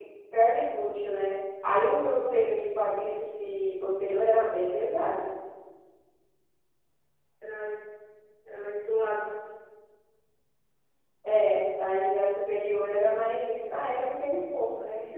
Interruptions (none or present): none